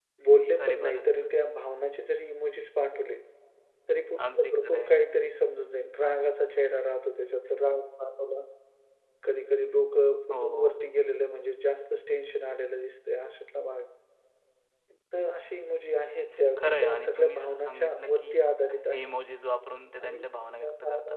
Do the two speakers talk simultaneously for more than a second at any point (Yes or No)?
Yes